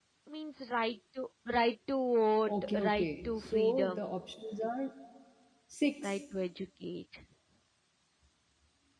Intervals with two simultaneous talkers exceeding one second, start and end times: 2.5-4.2

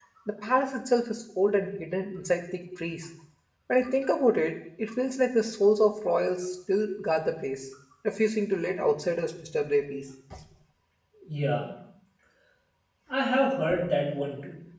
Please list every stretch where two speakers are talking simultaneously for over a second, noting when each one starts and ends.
none

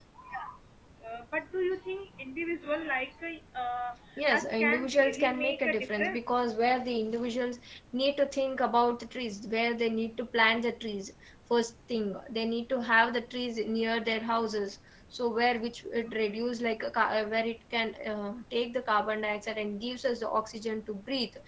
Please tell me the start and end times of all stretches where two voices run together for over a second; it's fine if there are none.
4.3-6.3

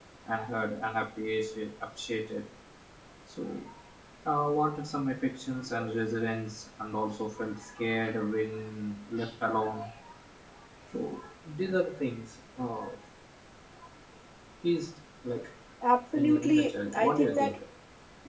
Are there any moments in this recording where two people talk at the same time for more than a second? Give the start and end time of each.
16.1-17.6

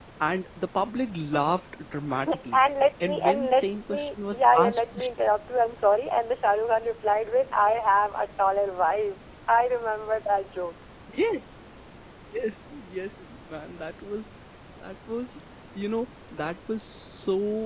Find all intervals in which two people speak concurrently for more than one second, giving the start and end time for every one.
3.0-5.0

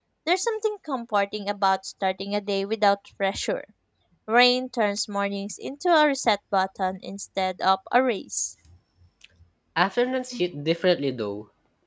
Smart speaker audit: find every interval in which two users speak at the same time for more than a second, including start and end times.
none

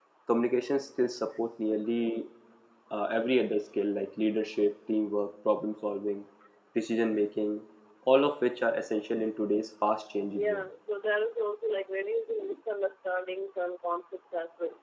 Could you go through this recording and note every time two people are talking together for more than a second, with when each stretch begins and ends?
none

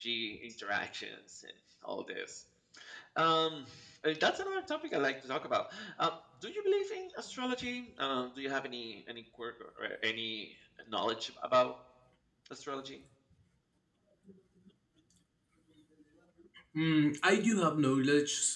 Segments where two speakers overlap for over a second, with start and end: none

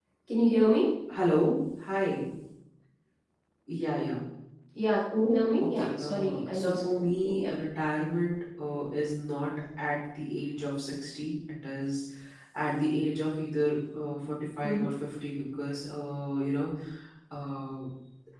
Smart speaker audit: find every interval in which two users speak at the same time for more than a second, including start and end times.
5.6-7.5

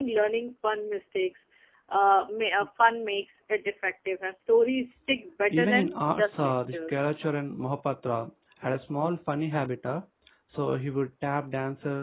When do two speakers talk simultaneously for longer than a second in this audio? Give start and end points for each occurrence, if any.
5.5-7.1

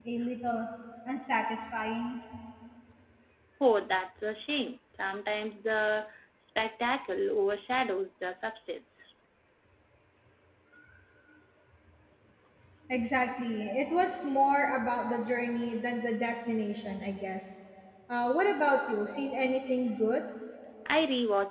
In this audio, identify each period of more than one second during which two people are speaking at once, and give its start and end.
none

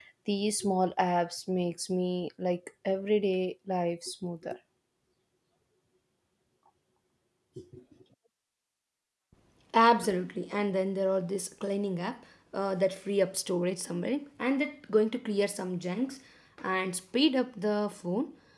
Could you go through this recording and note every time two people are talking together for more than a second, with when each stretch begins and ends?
none

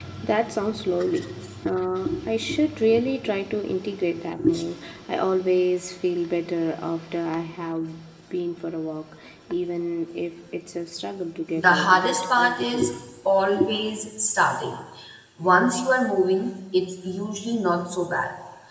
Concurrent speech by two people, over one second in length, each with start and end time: 11.6-12.9

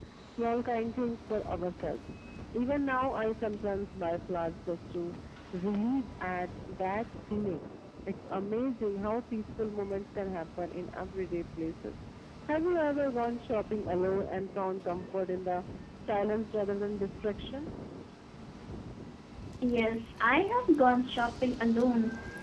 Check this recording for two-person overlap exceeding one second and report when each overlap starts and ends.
none

